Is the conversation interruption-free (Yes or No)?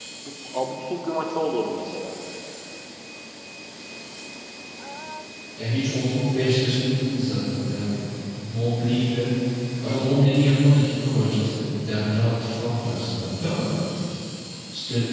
Yes